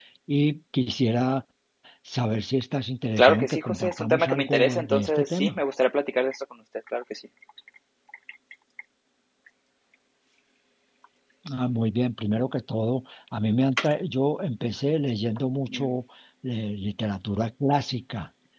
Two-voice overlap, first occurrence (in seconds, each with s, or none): 3.2 s